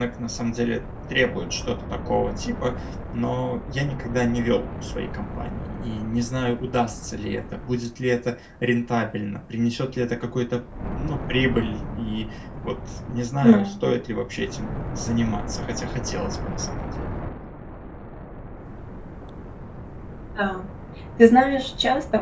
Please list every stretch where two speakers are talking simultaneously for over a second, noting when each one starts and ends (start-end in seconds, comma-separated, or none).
none